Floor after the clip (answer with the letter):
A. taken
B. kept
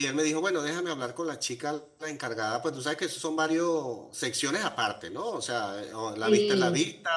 B